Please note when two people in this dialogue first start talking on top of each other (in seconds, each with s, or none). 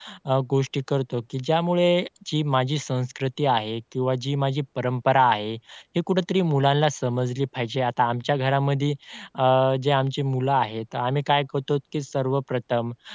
none